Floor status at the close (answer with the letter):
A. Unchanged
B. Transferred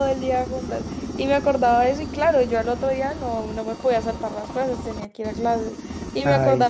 A